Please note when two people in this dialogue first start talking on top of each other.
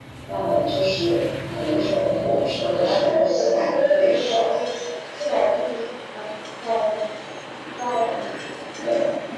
2.7 s

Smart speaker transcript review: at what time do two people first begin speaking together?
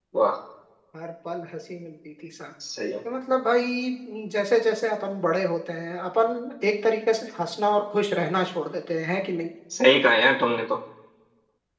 none

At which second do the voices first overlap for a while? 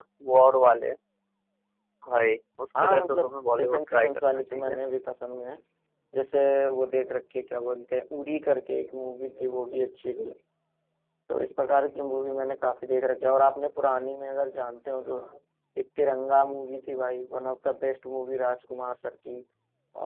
2.8 s

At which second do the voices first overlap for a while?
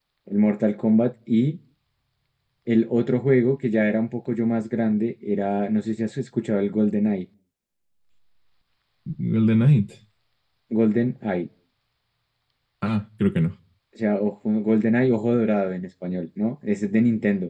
none

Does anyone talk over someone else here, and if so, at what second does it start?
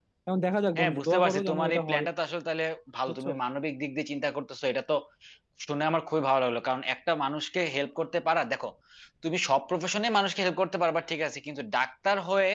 0.8 s

